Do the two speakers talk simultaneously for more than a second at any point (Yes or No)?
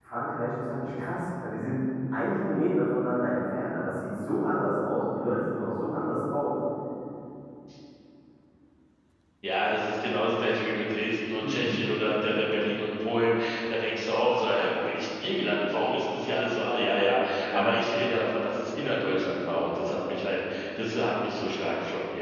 No